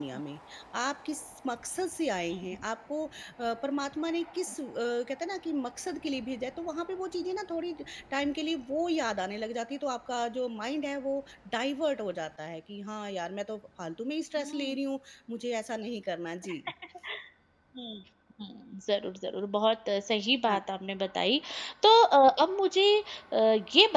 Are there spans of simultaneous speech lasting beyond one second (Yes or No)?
No